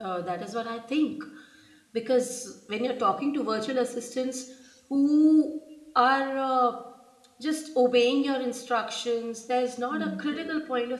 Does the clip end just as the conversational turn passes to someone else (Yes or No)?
No